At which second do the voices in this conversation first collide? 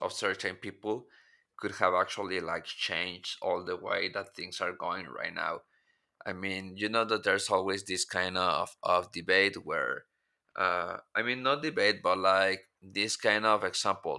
none

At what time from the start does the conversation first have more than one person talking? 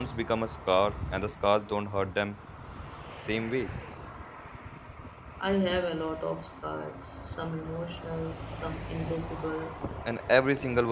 none

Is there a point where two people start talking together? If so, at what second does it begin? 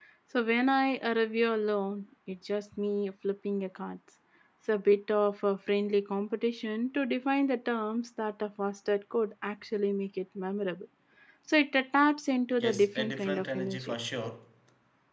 12.6 s

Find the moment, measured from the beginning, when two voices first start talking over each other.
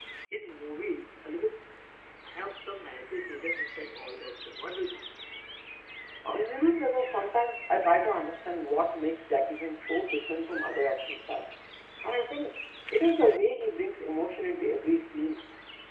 none

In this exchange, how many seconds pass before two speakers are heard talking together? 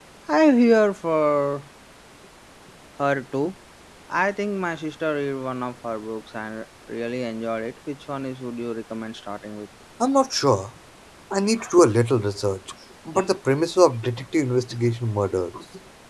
none

